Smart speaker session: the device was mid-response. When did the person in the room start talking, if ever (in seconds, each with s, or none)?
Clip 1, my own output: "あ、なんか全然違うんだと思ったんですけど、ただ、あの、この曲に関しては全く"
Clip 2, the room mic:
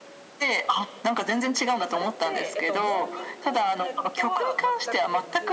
1.8 s